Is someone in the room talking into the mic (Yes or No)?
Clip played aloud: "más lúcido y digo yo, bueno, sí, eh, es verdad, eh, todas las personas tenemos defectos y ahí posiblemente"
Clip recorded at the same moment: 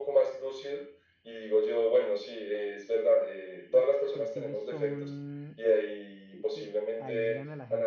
Yes